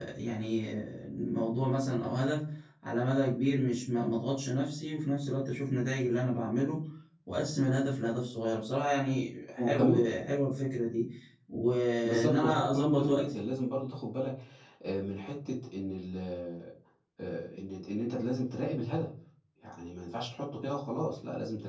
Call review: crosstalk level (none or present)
present